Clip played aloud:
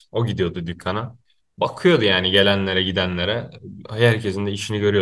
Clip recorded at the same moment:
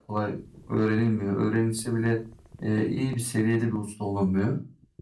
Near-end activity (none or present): present